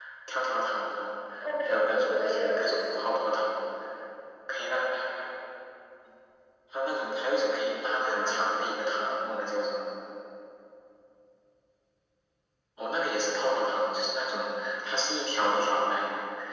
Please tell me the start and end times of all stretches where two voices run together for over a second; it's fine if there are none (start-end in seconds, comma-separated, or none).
1.6-3.1, 8.0-9.3